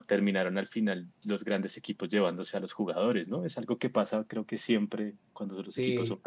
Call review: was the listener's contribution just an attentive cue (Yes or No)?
No